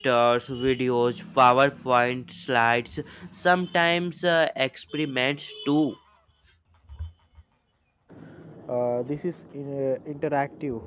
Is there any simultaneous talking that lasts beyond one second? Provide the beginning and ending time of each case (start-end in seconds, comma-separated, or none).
none